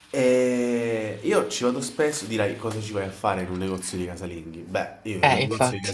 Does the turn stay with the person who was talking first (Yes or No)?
Yes